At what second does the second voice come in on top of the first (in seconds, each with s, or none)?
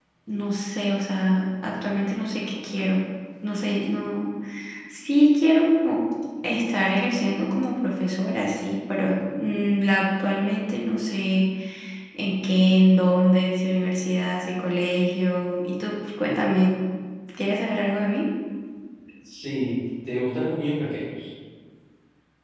none